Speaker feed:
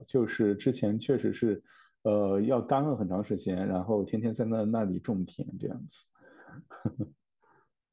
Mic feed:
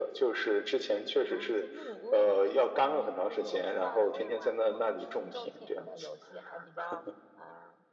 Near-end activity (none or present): present